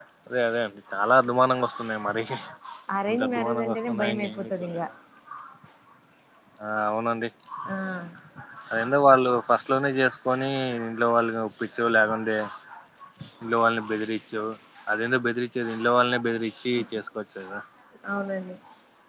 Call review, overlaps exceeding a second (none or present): present